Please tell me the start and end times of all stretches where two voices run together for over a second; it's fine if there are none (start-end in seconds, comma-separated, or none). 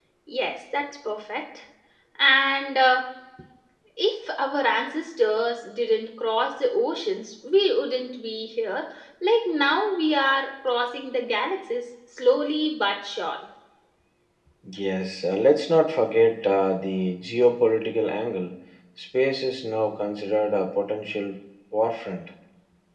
none